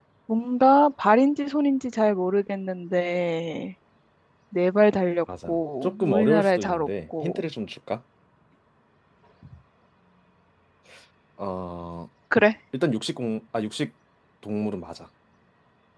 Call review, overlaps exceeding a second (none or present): present